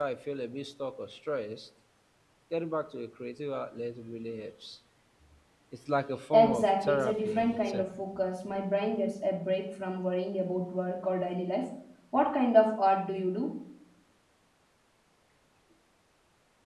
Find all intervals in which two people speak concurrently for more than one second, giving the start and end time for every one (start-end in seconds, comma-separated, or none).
6.3-7.8